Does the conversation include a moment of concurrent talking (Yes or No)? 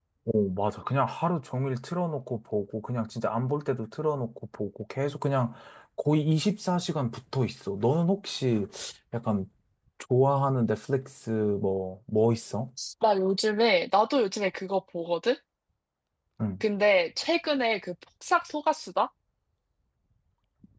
No